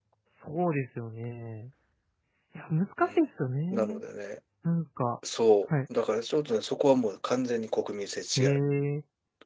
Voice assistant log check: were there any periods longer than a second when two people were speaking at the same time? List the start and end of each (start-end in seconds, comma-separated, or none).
none